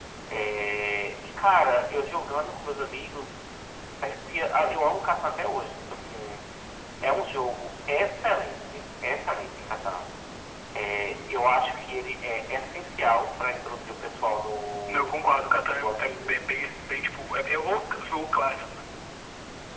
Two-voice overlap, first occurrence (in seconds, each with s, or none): 14.9 s